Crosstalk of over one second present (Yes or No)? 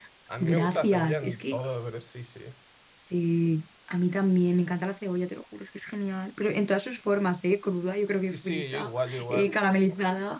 Yes